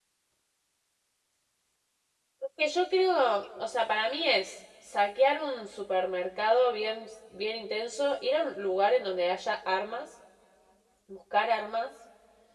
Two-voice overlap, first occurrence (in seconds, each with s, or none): none